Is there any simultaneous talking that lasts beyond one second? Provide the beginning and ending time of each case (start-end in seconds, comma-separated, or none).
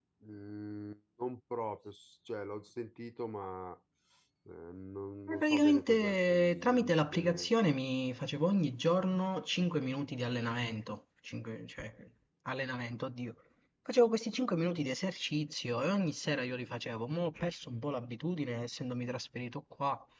5.3-7.5